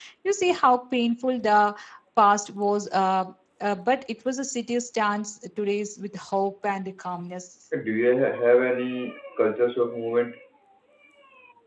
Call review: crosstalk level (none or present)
none